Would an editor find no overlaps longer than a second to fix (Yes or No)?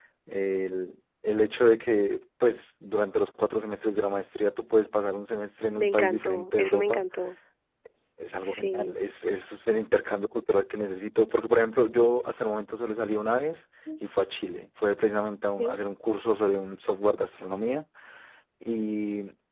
No